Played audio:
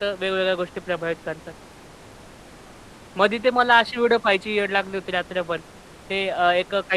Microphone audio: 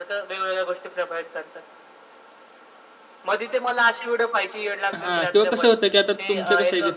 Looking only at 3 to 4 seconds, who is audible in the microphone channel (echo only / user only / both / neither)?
echo only